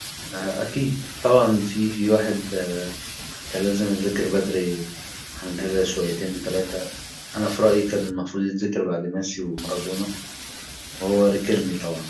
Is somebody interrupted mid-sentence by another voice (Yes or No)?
No